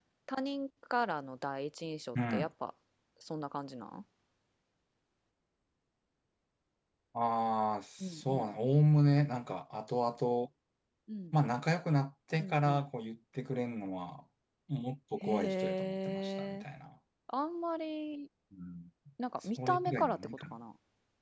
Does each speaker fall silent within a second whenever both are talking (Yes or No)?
No